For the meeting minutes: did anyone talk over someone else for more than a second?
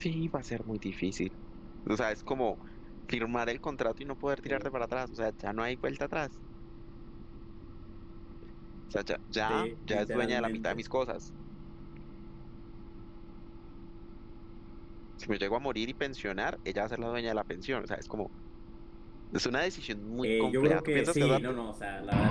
Yes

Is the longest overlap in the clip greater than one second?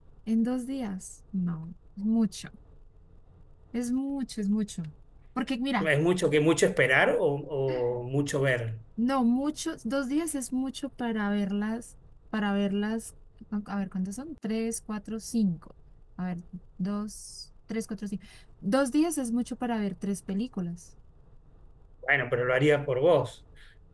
No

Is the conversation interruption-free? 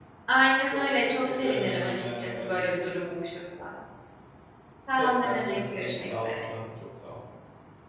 No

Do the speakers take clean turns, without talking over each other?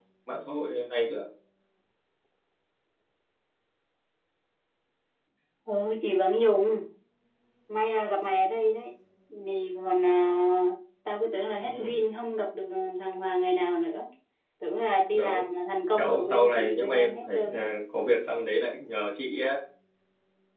No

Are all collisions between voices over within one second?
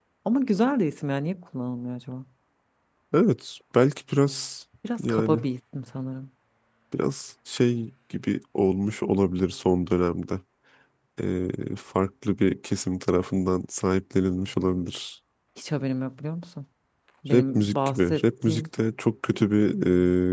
No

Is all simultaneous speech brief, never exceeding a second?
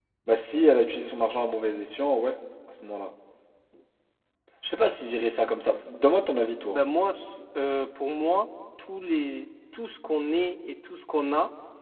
Yes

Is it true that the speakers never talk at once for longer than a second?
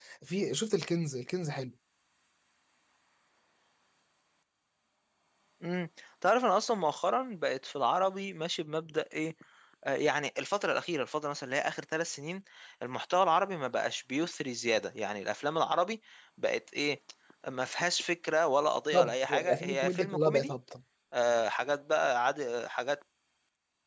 No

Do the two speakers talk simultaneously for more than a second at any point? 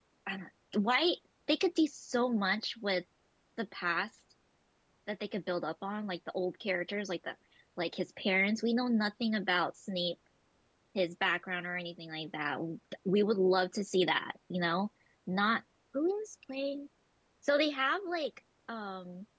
No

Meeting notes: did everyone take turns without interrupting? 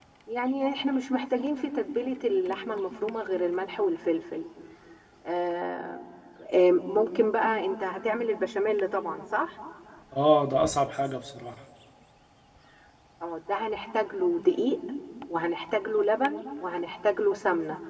Yes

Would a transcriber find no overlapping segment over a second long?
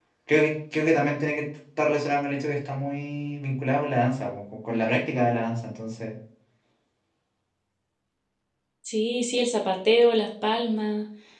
Yes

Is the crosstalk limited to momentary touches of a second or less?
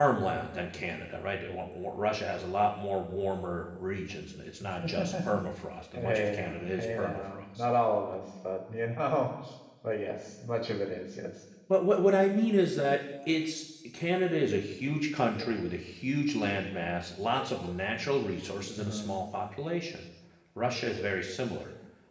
No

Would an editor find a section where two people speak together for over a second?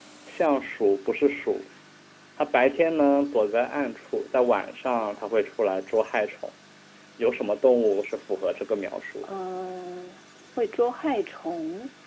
No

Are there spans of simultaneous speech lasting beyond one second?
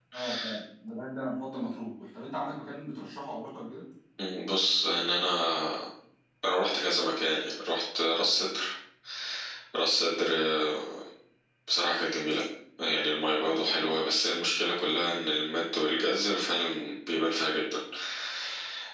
No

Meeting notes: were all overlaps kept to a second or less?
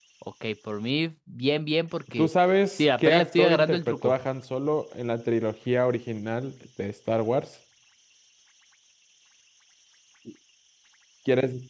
No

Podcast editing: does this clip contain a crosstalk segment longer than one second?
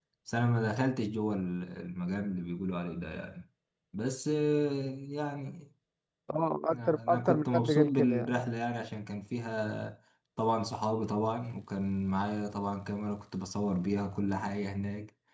Yes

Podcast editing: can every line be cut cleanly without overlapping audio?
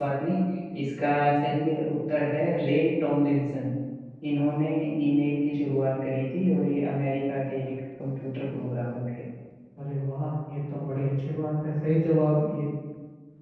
Yes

